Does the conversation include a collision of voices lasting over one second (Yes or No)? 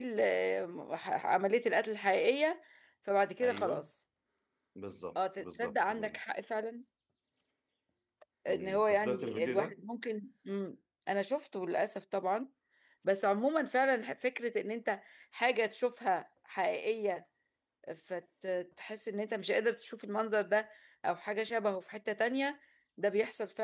Yes